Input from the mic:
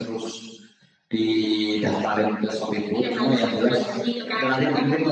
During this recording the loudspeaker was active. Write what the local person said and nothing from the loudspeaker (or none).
none